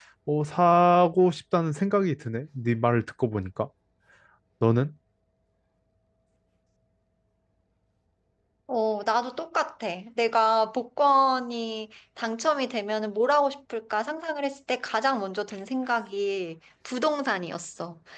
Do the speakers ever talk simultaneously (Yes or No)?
No